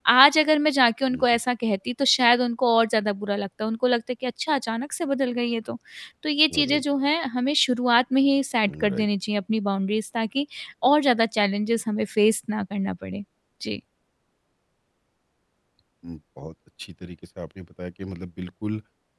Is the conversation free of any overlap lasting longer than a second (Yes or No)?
Yes